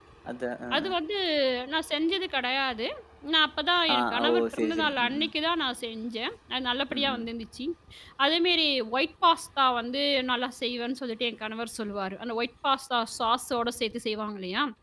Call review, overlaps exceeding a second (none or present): present